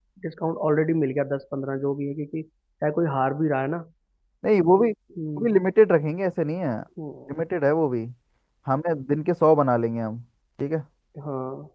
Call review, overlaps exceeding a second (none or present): none